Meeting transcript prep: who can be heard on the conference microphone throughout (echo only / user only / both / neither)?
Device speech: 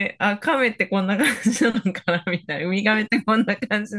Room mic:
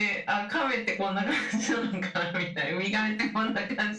echo only